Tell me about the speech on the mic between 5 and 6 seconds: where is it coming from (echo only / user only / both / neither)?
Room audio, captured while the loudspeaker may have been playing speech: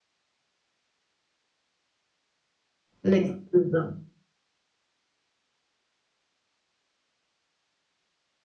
neither